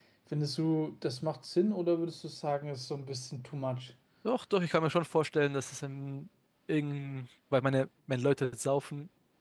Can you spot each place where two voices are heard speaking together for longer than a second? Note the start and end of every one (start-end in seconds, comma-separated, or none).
none